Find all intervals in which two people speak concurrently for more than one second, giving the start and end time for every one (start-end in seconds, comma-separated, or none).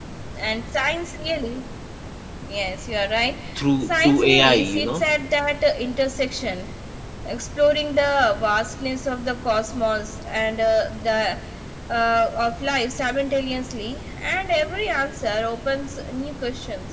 3.8-5.0